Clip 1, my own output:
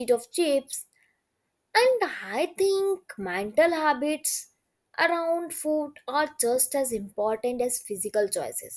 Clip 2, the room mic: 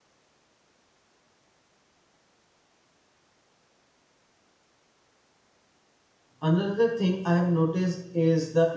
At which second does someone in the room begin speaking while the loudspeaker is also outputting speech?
6.4 s

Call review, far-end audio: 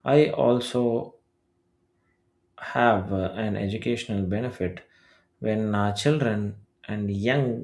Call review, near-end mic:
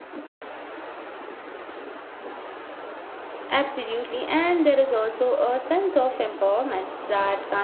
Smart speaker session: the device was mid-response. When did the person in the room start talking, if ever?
3.5 s

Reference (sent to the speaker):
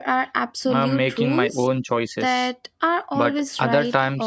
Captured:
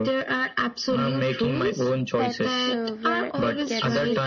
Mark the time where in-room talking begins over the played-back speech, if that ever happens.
2.1 s

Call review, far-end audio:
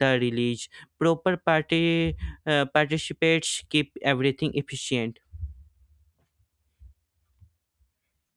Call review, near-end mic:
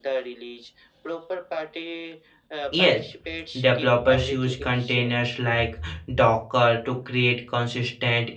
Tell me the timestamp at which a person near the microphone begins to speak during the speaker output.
2.7 s

